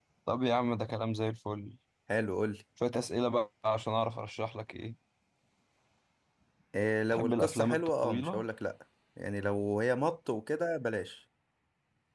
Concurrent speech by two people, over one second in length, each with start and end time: 7.1-8.4

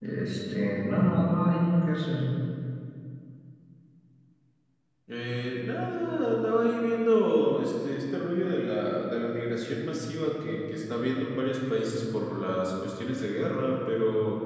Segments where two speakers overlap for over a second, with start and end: none

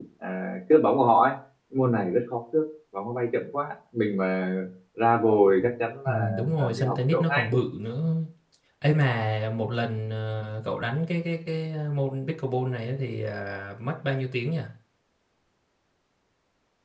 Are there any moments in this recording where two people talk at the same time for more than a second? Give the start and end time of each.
6.1-7.5

